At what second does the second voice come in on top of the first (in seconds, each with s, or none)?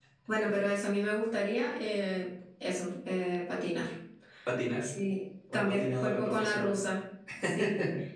5.5 s